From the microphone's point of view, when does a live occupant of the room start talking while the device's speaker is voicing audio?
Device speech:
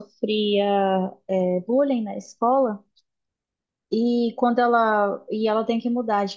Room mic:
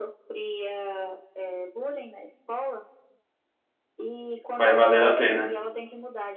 4.5 s

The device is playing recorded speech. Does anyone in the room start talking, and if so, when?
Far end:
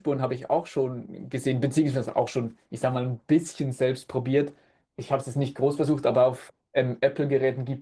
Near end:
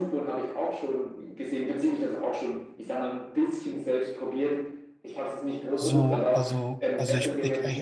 5.7 s

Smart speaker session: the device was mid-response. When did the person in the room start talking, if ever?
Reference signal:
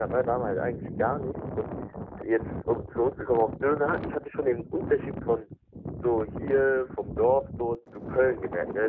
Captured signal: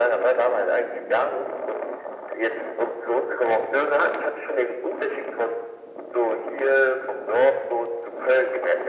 none

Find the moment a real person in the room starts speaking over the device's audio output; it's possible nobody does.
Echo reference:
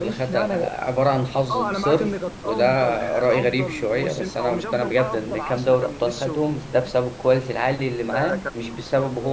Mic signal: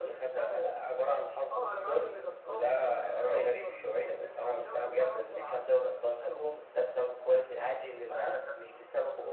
none

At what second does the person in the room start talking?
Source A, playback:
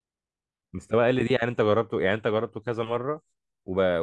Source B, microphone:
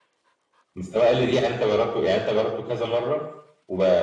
none

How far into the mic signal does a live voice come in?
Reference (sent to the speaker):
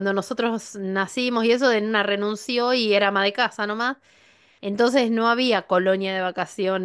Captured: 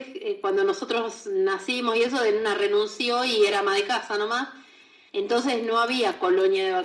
none

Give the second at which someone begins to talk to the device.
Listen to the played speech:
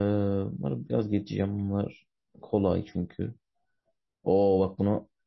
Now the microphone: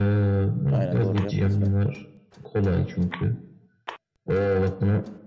0.7 s

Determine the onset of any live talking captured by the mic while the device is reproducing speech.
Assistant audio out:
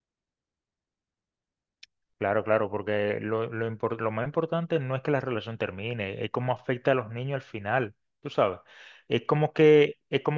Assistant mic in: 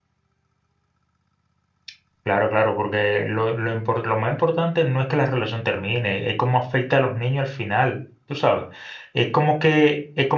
none

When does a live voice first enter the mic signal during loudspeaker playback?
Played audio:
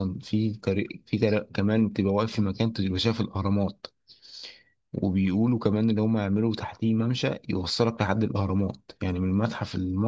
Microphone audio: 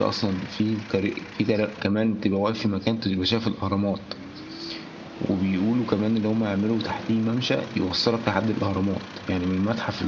none

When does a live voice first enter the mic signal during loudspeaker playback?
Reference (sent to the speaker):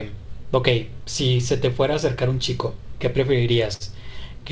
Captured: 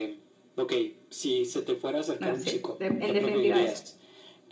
2.2 s

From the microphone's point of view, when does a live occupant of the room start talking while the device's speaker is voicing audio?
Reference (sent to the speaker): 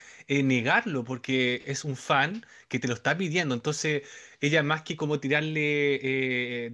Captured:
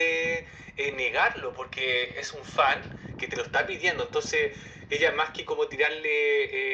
none

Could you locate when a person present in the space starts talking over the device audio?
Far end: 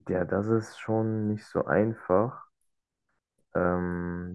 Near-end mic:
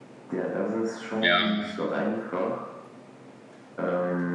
1.2 s

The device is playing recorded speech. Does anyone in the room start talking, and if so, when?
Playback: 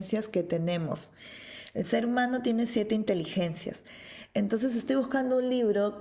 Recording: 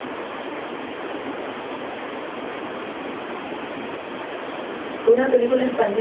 5.0 s

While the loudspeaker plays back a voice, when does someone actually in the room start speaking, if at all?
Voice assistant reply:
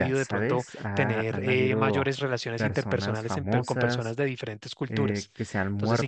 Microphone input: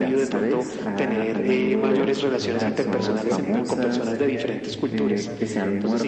1.4 s

